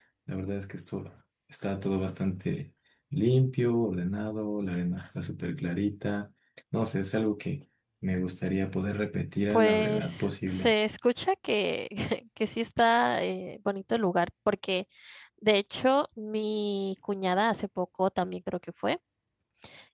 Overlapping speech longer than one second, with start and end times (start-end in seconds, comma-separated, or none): 9.5-10.7